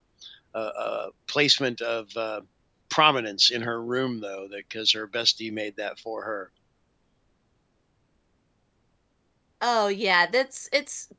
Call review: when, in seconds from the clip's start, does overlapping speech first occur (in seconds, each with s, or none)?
none